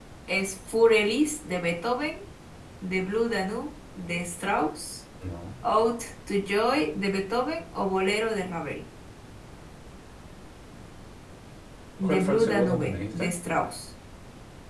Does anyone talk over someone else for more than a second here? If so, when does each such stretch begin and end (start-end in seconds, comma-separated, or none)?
12.0-13.3